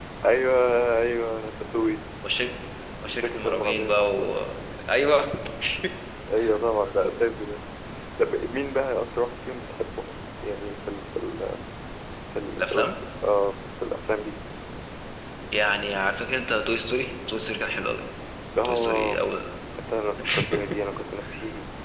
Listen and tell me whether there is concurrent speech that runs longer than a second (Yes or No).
Yes